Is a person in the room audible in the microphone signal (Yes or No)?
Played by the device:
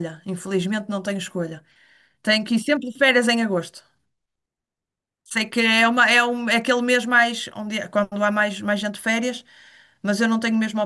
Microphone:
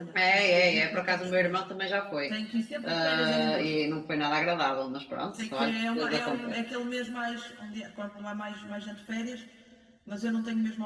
Yes